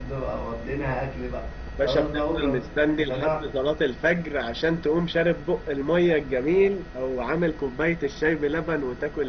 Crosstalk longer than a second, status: present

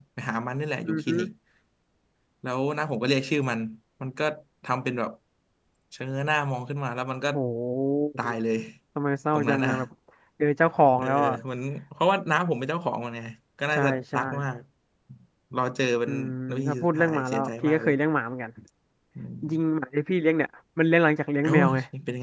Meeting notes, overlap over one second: present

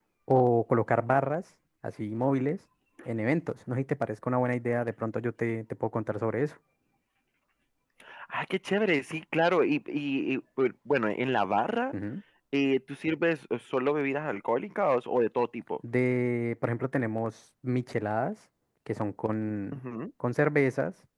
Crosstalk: none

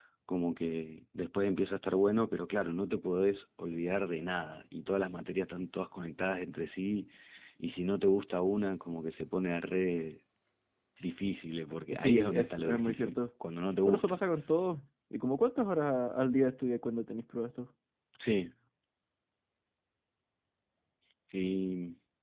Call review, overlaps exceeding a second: present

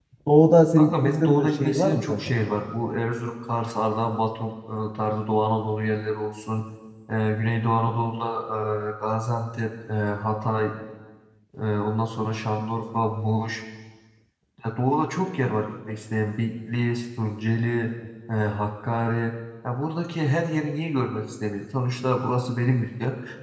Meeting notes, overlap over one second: present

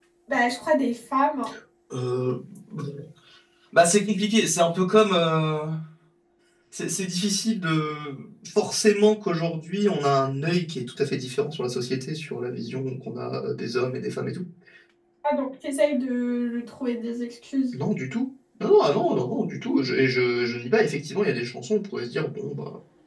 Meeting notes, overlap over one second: none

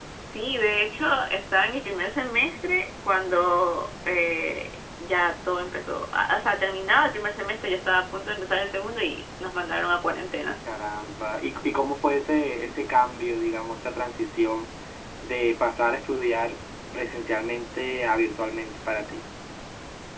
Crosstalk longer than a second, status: none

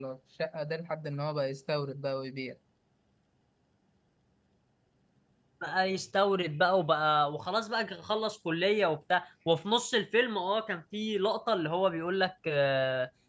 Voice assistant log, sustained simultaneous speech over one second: none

